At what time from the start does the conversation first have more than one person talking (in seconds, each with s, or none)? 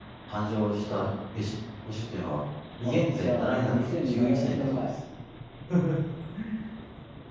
2.8 s